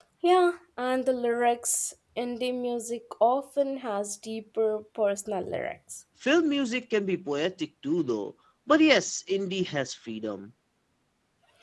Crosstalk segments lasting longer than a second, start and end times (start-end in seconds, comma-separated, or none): none